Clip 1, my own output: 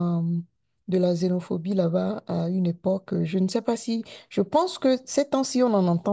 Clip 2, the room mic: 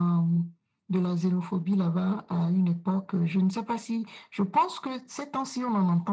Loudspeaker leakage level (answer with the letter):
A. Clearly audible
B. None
A